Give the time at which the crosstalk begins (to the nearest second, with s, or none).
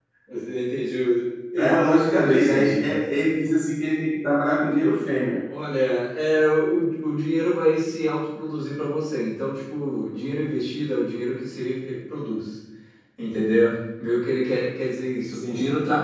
2 s